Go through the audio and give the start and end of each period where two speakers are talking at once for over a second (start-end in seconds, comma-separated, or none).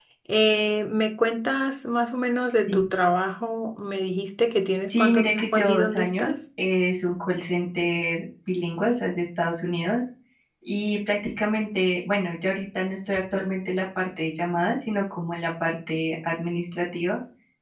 4.8-6.4